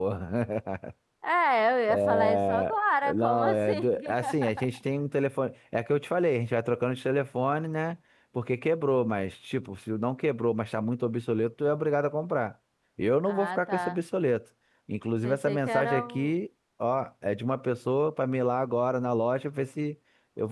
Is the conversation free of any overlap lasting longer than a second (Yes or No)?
No